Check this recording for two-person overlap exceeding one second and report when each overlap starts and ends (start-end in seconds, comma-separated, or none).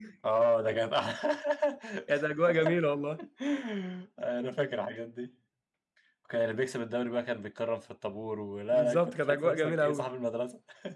8.7-10.1